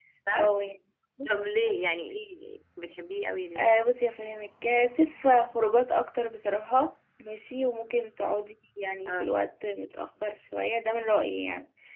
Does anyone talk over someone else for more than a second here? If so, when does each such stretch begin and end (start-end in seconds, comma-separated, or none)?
none